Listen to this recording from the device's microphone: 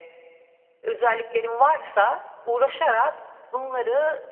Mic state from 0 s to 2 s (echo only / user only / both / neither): echo only